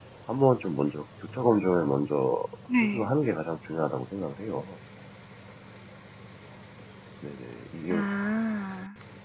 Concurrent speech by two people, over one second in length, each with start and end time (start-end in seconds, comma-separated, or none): none